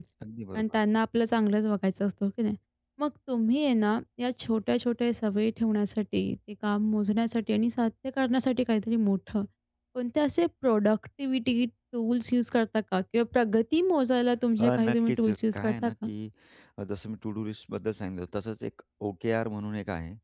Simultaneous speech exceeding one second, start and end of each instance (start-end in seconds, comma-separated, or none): 14.6-16.1